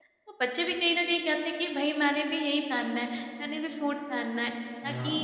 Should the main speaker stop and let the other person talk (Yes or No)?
No